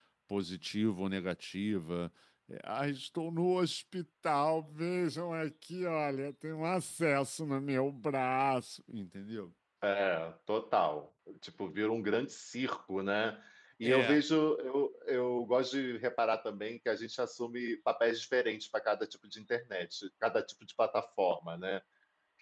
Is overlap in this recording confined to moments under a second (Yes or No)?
Yes